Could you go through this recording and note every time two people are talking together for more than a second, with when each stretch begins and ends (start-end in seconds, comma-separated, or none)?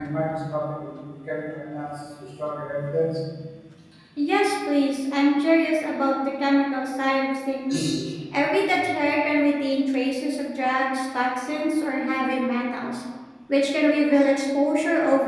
none